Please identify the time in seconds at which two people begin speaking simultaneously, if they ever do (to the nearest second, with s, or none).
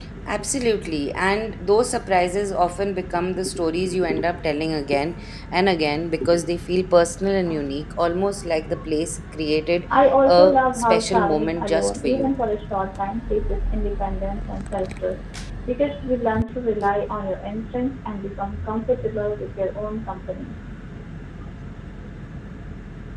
10 s